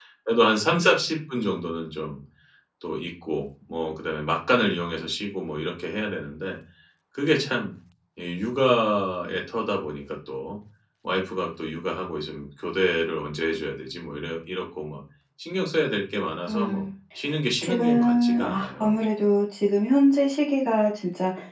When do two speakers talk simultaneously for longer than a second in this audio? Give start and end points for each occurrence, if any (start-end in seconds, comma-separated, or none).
17.6-18.9